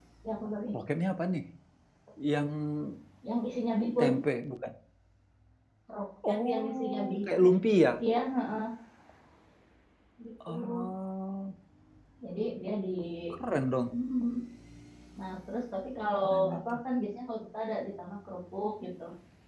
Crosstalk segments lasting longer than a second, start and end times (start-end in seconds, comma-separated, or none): 6.3-7.5